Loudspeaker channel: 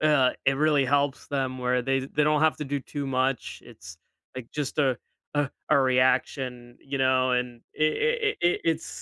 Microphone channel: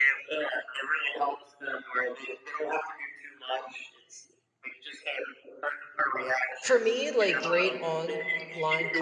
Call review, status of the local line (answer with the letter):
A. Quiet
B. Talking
B